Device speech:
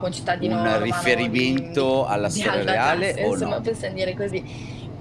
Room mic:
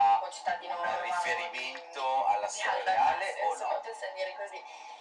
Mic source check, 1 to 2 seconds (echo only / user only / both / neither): echo only